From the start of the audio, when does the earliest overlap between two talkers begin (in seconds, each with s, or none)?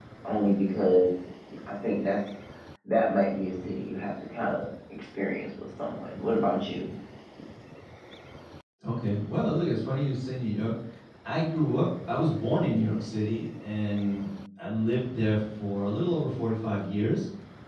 none